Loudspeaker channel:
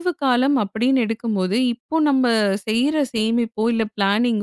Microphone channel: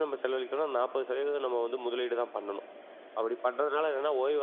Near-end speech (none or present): present